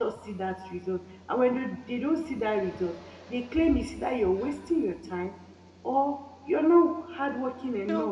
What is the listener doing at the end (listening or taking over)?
taking over